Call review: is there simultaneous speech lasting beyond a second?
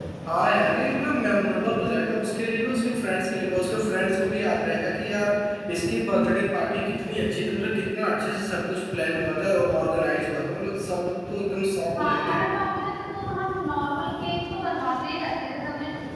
No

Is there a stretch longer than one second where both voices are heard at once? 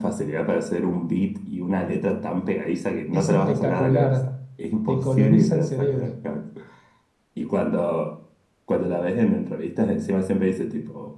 Yes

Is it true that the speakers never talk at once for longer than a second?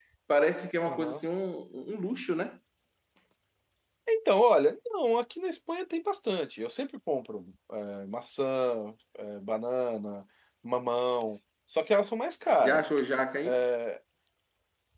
Yes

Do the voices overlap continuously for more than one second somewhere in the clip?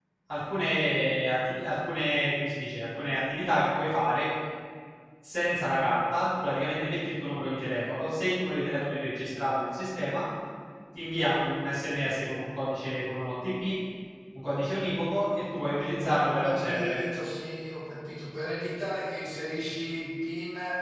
Yes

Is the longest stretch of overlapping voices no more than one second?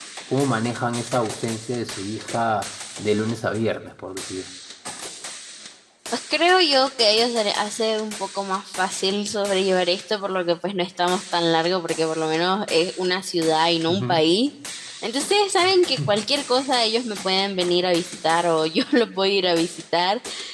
Yes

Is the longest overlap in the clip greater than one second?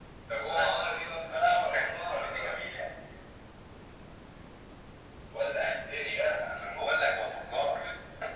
Yes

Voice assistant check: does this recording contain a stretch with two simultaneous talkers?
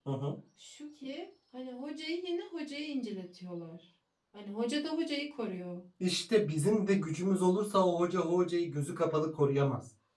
No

